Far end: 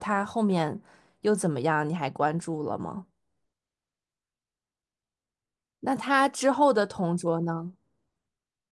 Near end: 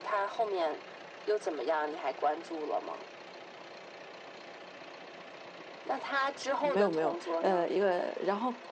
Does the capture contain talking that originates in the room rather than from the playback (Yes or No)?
Yes